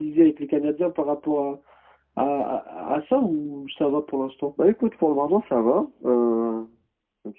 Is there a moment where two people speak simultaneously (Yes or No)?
No